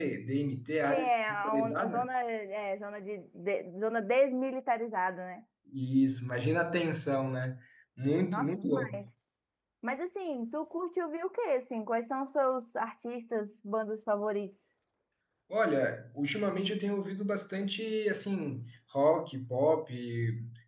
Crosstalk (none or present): present